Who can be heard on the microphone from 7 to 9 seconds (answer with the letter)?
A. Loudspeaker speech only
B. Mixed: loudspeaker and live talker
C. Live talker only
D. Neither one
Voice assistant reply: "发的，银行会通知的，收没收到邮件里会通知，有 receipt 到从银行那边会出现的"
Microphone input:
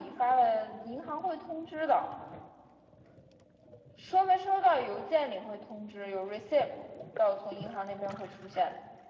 A